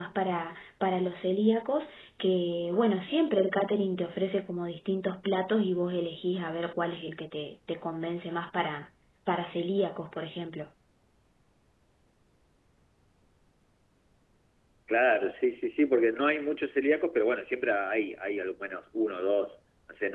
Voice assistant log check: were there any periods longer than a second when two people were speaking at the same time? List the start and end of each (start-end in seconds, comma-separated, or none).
none